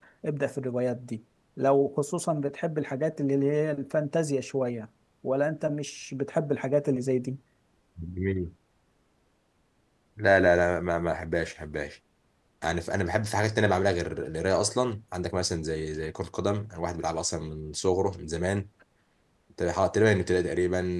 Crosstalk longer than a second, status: none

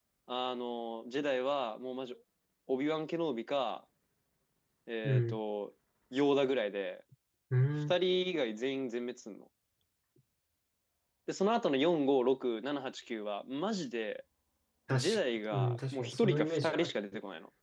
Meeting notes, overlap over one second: present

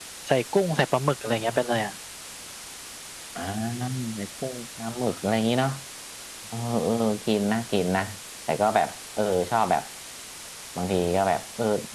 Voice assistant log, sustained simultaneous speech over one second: none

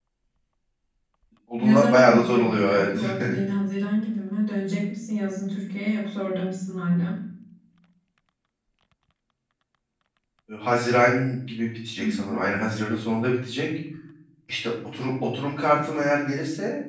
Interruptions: present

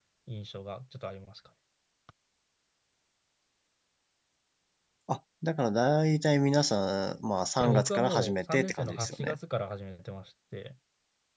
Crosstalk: present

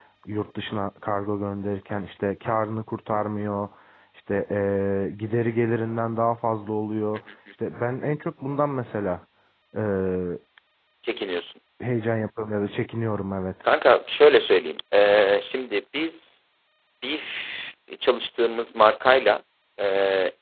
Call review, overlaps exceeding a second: none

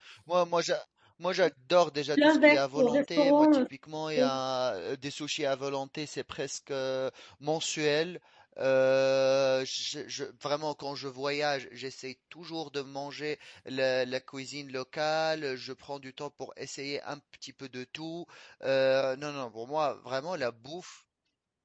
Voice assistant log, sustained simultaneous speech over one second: present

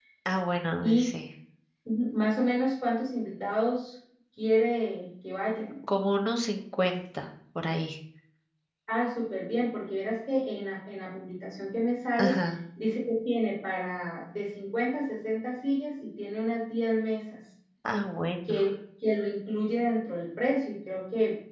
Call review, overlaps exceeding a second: none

